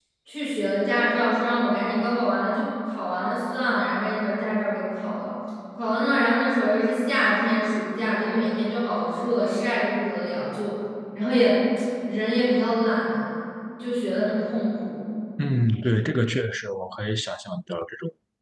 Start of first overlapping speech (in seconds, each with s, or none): none